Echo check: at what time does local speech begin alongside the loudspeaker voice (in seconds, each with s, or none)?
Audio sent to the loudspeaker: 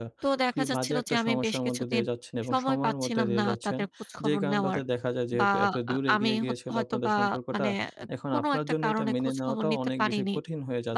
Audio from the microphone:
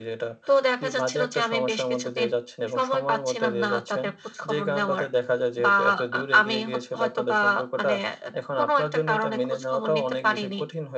none